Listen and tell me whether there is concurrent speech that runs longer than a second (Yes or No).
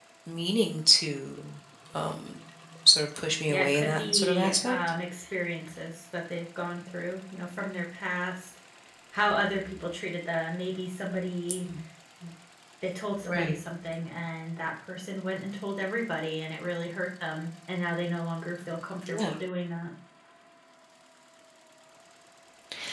Yes